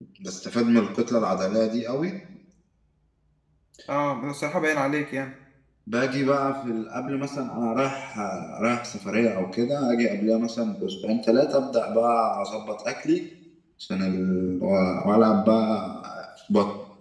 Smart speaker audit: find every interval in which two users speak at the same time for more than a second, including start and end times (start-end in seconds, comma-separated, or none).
none